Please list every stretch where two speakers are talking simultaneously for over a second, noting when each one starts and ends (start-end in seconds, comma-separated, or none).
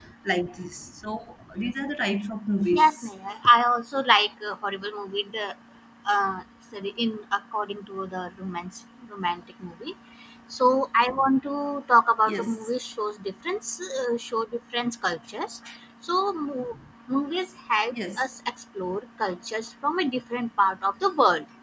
none